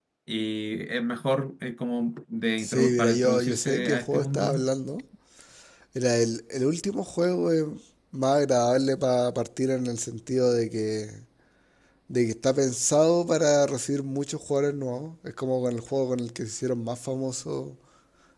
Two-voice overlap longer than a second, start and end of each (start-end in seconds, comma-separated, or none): 2.6-4.7